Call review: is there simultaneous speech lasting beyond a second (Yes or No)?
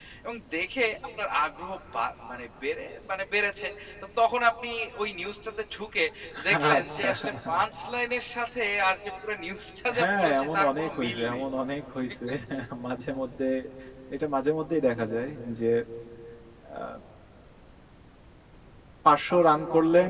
Yes